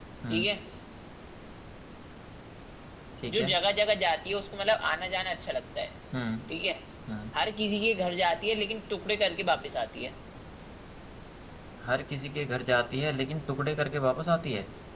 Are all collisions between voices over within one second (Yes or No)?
Yes